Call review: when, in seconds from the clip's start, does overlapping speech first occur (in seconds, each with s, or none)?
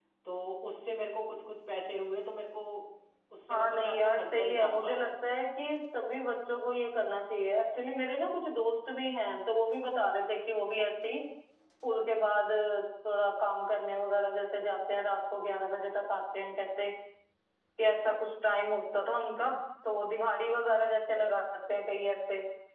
3.5 s